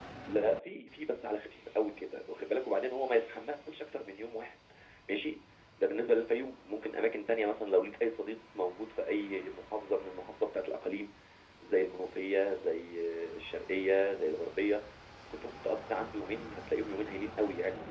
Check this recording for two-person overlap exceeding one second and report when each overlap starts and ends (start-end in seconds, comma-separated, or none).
none